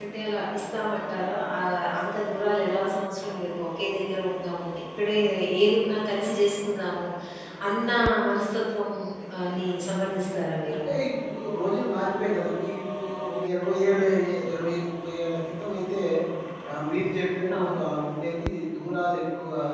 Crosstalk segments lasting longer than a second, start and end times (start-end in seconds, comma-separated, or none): none